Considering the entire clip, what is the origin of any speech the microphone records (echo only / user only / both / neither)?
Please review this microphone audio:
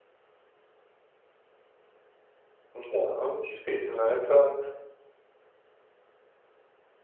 user only